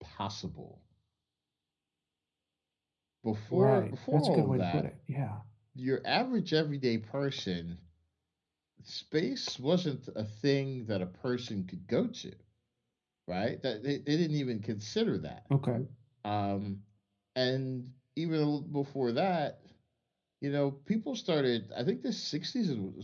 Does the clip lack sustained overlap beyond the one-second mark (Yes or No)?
No